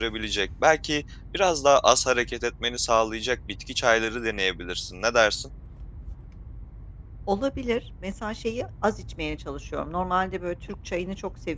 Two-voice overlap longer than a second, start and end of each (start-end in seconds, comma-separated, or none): none